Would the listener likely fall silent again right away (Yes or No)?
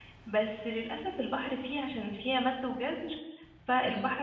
Yes